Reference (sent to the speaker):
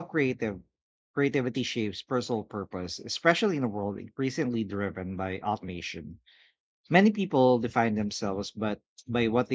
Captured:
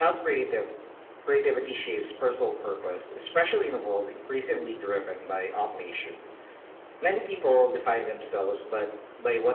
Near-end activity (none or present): none